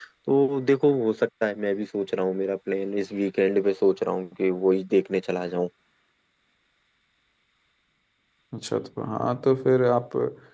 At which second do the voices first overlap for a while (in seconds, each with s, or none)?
none